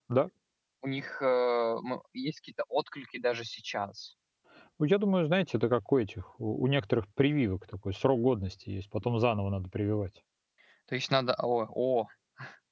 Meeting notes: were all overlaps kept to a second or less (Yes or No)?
Yes